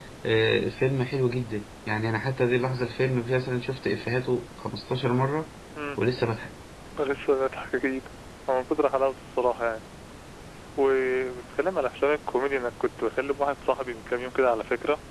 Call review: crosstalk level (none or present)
none